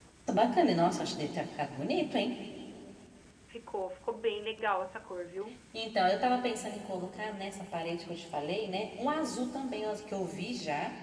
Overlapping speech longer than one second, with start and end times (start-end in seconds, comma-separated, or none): none